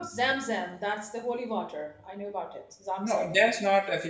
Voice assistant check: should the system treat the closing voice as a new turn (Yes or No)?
Yes